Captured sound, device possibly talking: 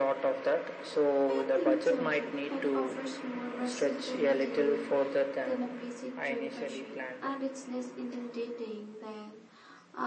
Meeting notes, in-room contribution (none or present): present